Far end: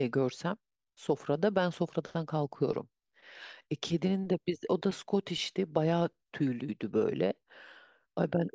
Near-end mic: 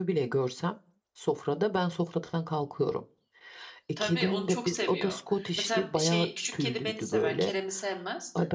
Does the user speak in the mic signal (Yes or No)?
Yes